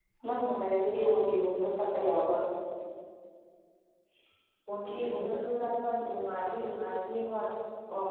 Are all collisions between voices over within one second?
Yes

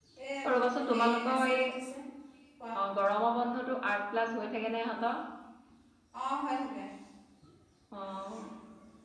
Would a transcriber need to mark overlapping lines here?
Yes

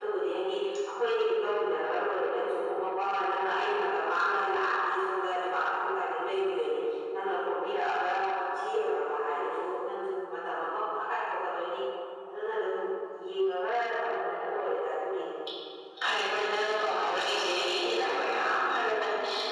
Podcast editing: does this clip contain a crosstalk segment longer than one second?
No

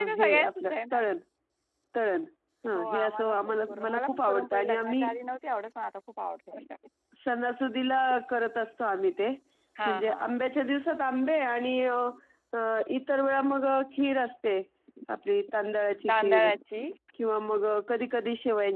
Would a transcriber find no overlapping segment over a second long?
No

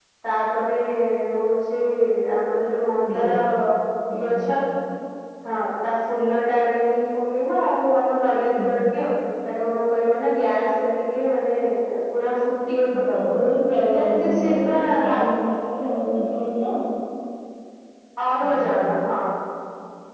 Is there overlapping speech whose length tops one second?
Yes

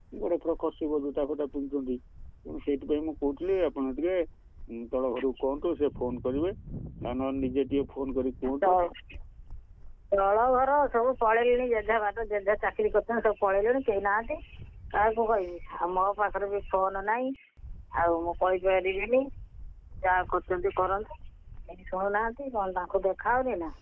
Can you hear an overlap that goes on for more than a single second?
No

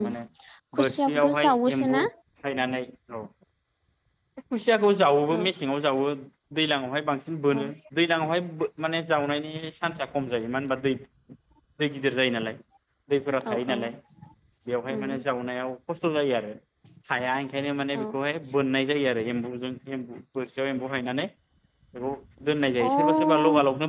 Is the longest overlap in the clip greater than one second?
Yes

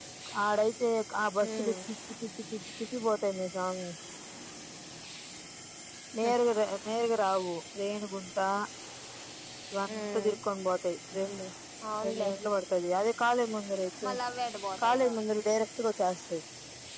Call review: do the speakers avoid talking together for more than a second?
Yes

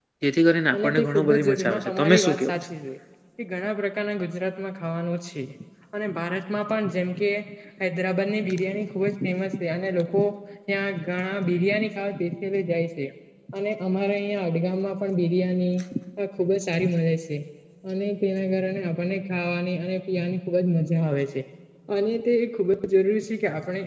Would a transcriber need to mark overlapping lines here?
Yes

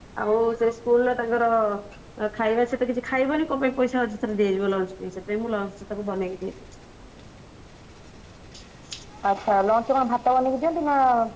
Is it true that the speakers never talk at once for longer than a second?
Yes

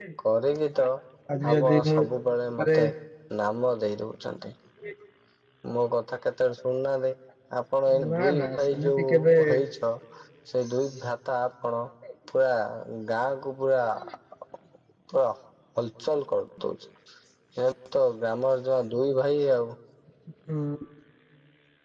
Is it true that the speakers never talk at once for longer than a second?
No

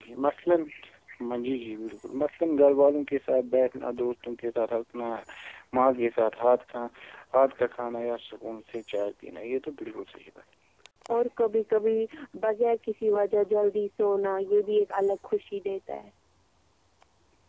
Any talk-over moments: No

